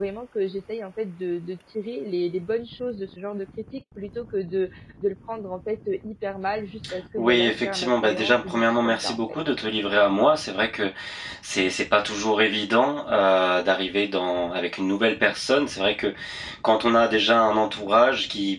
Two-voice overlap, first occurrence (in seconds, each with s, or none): 7.2 s